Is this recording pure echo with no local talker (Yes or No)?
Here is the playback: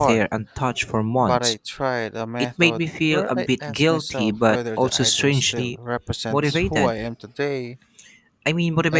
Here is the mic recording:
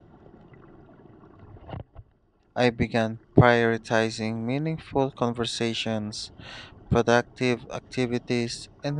No